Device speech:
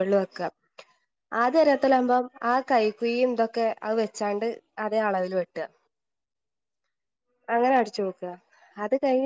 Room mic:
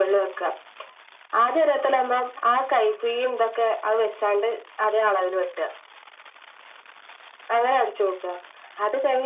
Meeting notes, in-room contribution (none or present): none